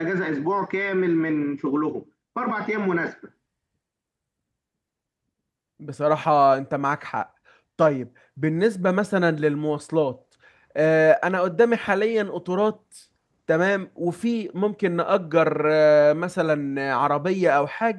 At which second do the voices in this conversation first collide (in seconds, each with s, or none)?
none